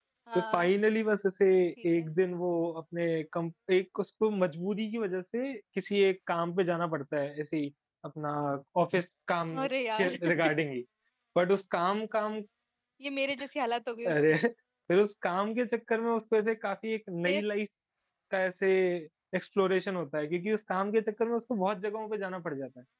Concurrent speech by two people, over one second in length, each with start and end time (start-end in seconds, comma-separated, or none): none